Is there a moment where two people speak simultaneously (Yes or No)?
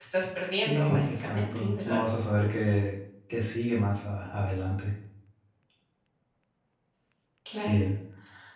Yes